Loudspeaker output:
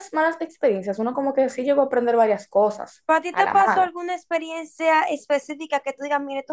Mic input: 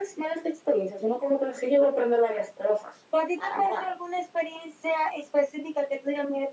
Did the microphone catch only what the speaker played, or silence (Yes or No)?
Yes